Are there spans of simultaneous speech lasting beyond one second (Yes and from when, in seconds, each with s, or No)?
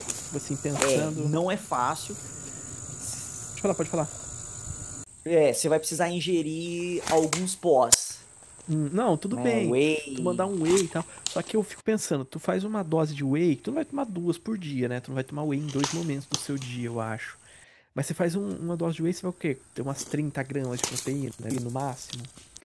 No